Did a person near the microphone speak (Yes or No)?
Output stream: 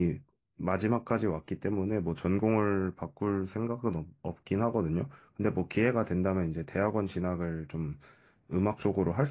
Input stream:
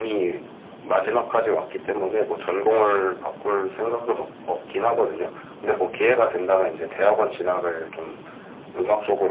No